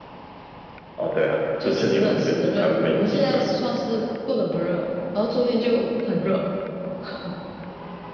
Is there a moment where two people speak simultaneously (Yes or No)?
Yes